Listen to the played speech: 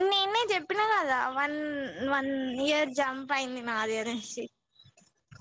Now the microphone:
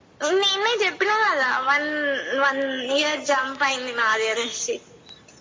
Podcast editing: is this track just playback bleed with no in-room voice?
Yes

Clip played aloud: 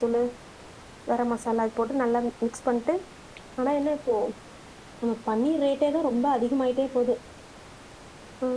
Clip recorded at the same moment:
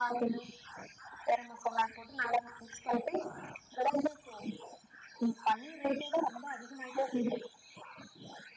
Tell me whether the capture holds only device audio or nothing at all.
Yes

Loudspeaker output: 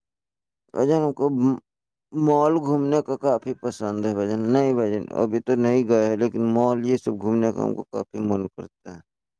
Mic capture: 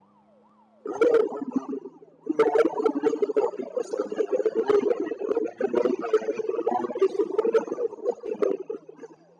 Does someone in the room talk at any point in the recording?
No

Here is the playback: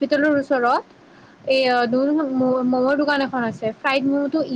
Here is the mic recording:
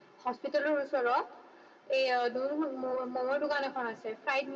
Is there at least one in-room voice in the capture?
No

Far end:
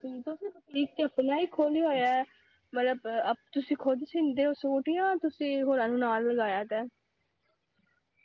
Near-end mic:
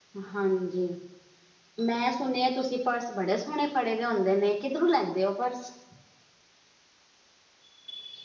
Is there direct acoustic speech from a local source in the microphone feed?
Yes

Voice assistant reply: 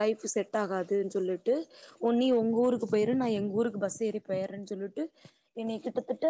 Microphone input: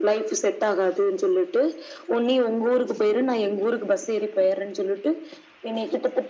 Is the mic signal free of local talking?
Yes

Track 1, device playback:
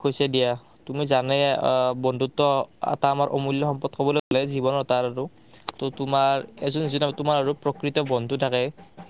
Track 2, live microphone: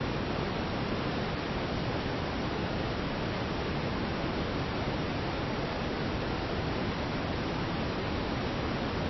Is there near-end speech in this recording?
No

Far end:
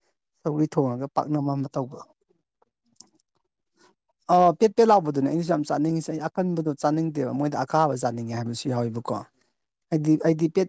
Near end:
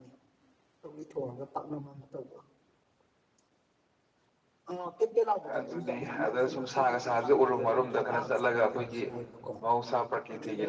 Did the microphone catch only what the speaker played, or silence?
No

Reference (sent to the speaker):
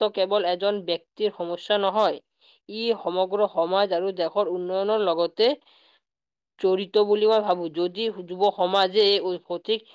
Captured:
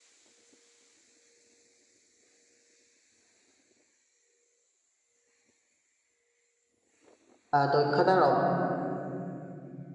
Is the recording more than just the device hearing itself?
Yes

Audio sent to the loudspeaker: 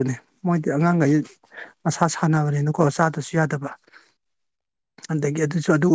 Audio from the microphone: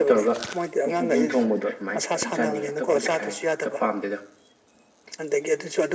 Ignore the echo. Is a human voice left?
Yes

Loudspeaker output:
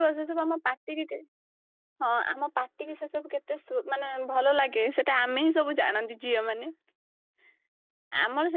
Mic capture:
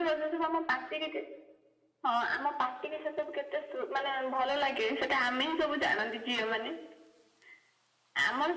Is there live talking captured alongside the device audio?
No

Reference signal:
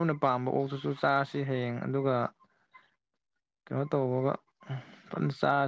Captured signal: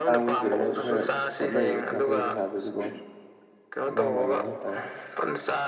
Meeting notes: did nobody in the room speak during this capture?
No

